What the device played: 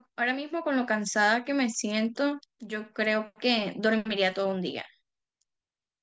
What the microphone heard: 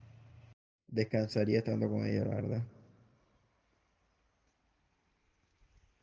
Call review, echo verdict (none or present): none